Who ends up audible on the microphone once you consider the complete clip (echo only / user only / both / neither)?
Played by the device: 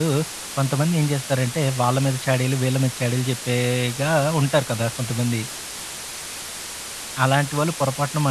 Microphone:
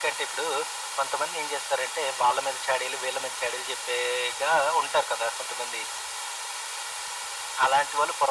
echo only